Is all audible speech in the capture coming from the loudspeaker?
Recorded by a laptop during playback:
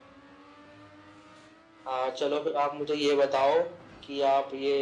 Yes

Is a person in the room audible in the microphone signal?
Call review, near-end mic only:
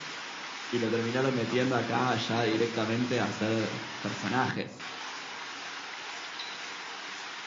Yes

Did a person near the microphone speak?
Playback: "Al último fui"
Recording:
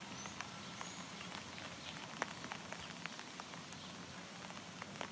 No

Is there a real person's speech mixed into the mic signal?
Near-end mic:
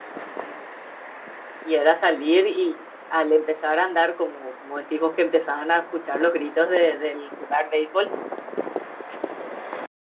Yes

